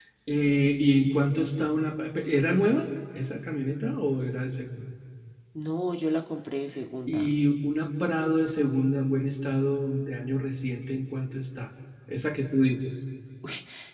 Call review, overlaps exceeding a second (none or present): none